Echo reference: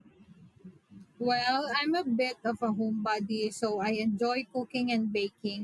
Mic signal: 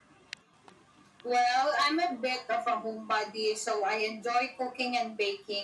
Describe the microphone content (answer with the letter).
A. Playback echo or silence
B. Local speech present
A